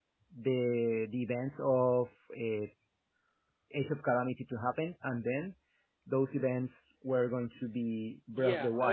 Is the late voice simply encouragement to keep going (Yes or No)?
No